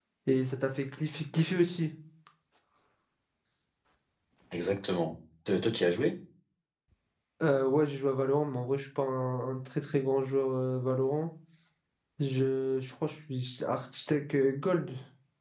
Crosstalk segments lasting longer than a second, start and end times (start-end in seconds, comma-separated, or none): none